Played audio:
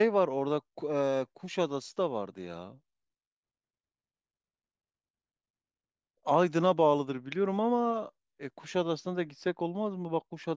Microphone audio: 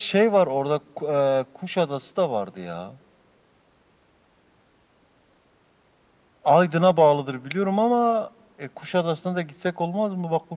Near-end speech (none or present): none